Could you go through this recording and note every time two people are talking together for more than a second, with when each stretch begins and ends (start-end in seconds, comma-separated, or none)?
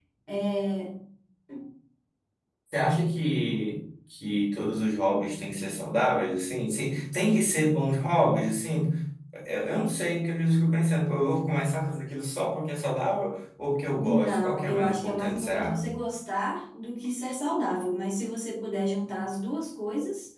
14.0-15.8